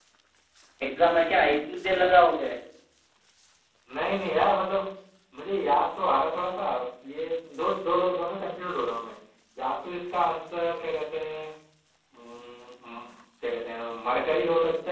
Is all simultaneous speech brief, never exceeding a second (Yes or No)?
Yes